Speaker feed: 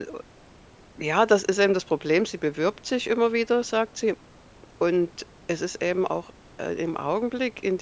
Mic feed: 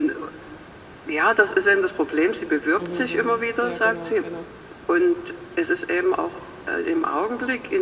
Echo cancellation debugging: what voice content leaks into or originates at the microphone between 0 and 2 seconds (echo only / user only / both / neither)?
echo only